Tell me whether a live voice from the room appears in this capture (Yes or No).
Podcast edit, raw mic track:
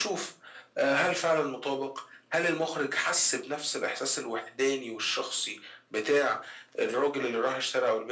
No